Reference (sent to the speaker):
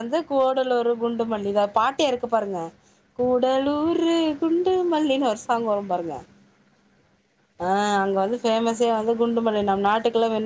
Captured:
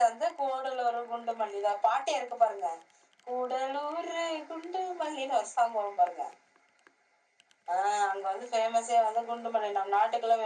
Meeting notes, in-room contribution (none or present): none